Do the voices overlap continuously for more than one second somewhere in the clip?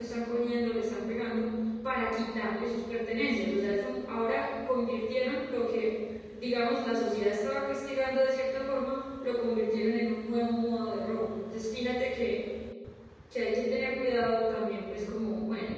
No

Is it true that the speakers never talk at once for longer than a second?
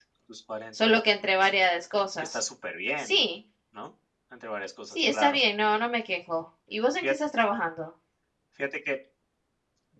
Yes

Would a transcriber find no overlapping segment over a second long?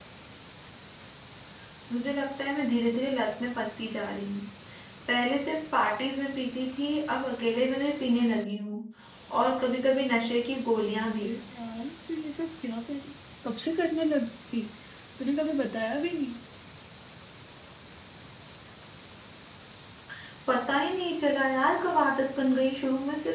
Yes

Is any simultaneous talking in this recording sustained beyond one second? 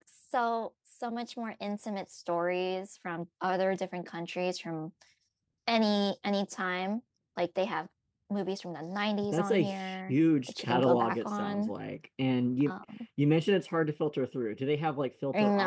Yes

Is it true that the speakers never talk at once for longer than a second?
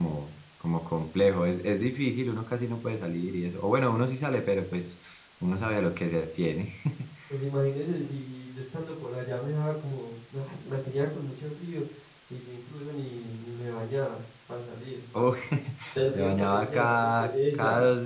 No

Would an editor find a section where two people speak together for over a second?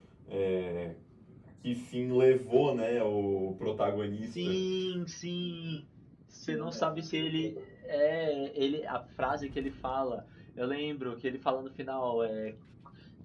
No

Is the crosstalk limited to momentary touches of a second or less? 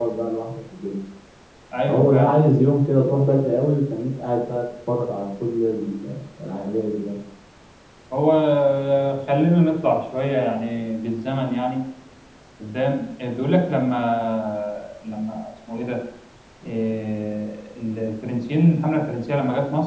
Yes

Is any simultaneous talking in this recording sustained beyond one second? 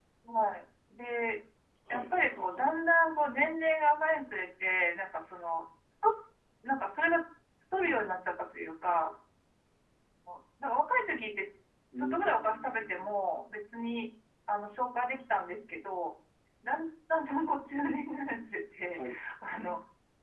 Yes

